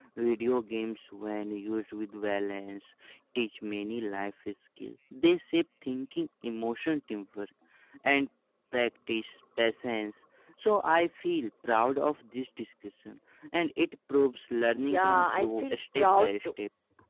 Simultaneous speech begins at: 14.8 s

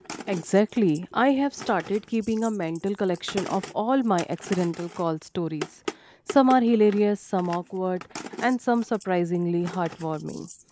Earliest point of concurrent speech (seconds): none

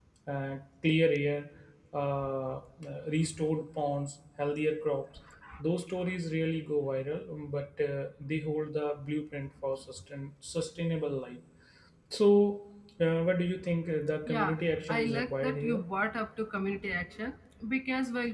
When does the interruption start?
14.2 s

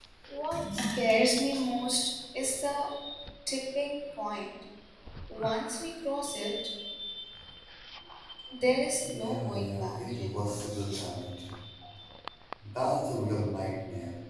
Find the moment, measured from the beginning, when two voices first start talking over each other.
9.0 s

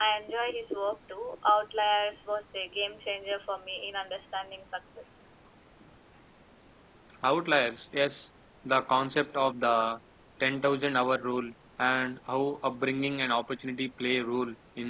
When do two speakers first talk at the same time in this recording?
none

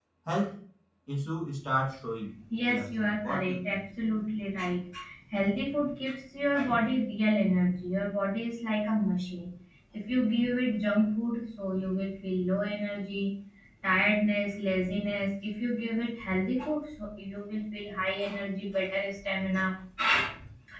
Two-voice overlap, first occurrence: 2.5 s

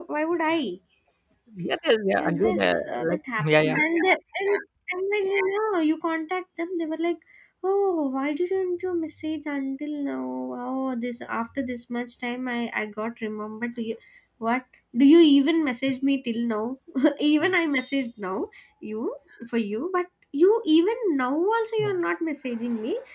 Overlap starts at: 2.1 s

